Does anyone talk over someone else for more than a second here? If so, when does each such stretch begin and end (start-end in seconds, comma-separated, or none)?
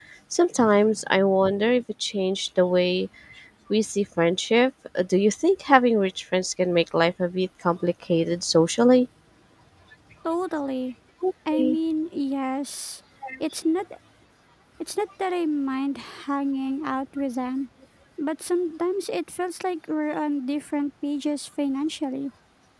none